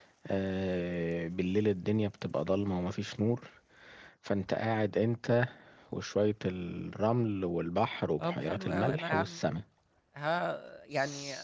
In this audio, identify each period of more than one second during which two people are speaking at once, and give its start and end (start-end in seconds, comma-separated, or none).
8.2-9.4